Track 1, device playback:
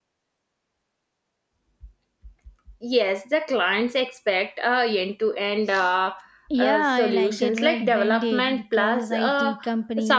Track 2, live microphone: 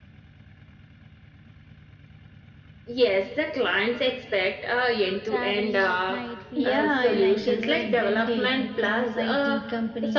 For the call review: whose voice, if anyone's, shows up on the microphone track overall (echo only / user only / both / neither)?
both